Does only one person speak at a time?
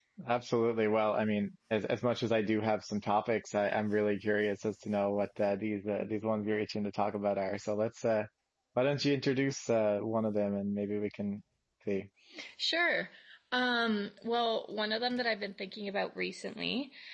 Yes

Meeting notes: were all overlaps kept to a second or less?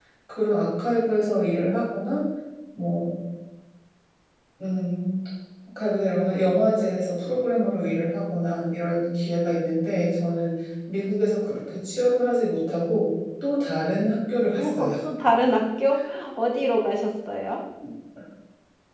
Yes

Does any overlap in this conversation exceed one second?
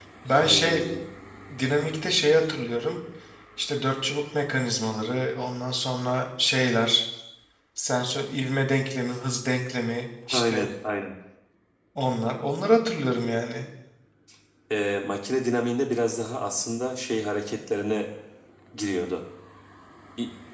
No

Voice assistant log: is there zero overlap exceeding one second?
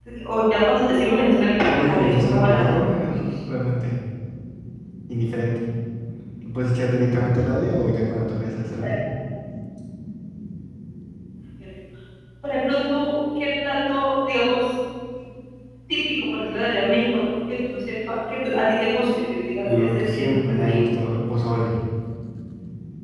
No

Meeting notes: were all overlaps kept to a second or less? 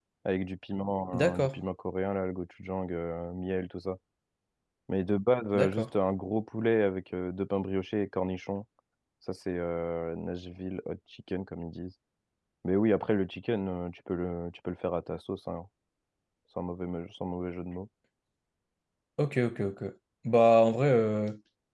Yes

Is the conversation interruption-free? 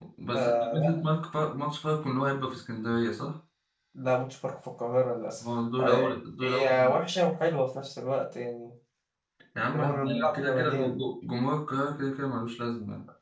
No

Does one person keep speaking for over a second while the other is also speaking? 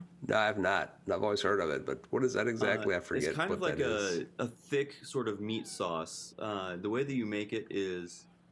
Yes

